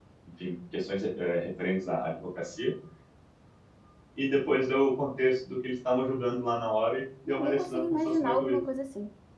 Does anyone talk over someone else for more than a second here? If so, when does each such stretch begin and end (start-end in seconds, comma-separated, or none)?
7.3-8.6